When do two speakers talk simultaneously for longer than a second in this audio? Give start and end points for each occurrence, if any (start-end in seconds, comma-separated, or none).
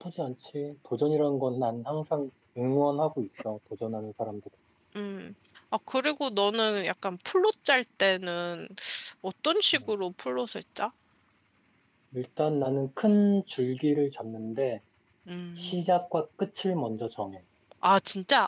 none